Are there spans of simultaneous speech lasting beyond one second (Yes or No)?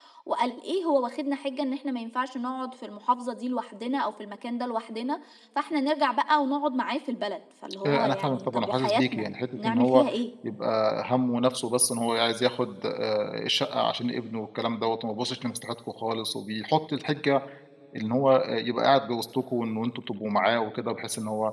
Yes